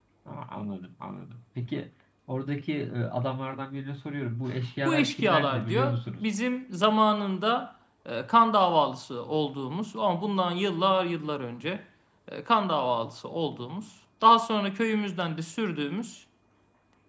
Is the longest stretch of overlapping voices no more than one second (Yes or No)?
No